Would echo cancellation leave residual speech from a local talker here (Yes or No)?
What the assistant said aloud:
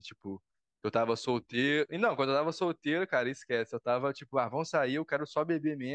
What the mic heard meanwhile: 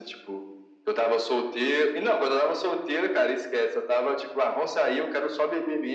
No